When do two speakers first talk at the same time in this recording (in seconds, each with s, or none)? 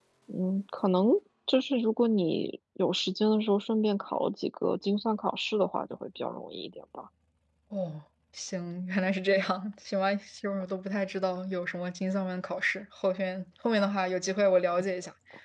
none